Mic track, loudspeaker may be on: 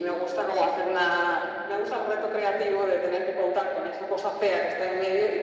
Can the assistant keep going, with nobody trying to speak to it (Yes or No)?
Yes